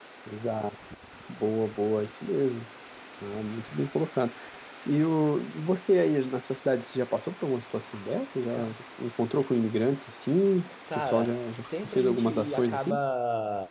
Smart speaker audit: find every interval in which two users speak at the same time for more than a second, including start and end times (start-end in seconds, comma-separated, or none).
11.0-13.0